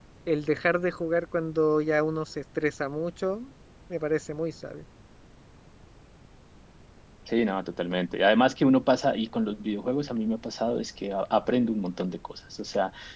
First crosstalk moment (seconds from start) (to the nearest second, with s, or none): none